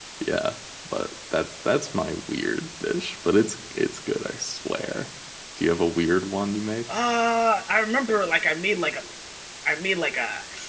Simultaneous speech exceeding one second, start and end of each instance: none

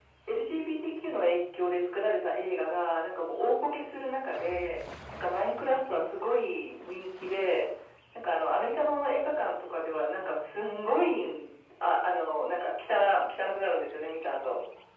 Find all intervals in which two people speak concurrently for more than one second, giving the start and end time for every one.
none

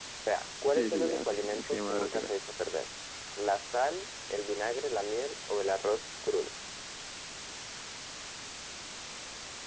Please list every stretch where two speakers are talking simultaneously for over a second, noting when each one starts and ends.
0.7-2.3

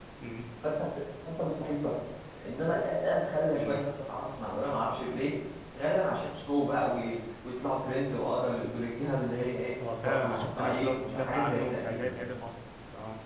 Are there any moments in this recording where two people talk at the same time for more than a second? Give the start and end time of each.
10.0-12.1

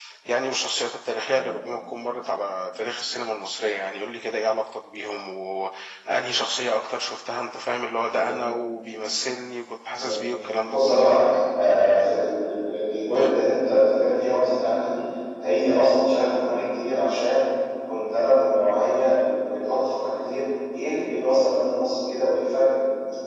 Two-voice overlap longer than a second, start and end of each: none

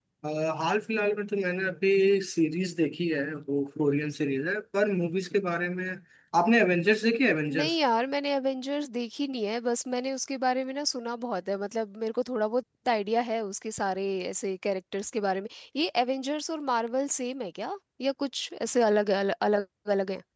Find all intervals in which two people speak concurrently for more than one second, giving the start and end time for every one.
none

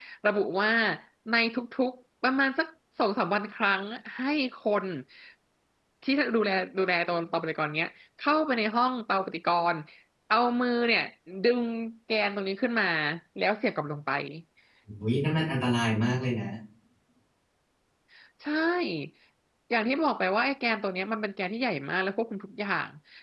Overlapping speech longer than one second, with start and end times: none

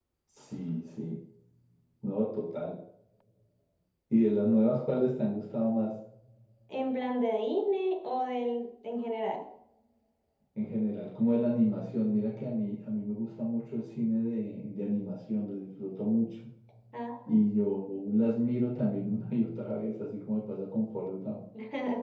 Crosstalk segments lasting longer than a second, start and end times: none

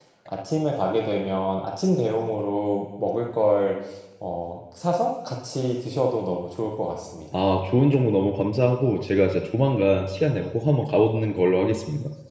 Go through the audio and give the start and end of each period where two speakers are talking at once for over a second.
none

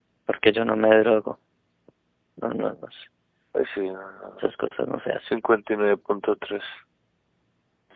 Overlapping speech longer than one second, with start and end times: none

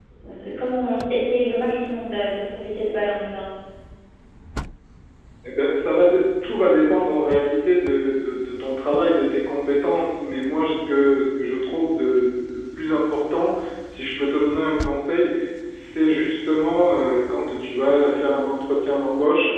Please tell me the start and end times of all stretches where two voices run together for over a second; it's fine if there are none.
none

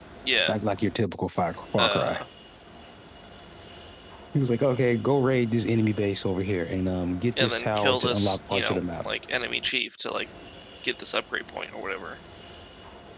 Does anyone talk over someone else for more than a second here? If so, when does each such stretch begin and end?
7.4-9.1

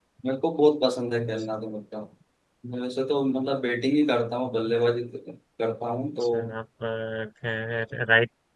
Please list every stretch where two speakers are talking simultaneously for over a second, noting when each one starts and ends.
none

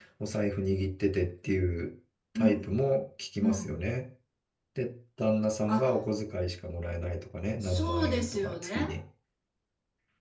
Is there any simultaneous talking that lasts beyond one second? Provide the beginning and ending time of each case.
7.6-8.8

